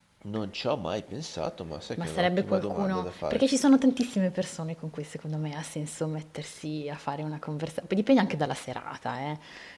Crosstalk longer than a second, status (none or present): present